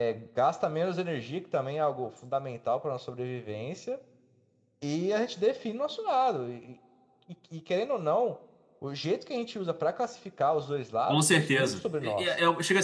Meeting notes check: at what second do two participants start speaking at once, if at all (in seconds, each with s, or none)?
11.1 s